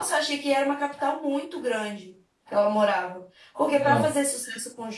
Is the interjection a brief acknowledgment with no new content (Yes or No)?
Yes